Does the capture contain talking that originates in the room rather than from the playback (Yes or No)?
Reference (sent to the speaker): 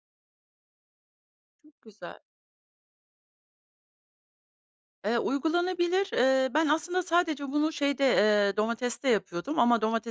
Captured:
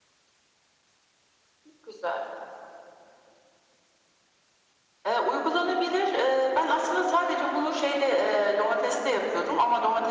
No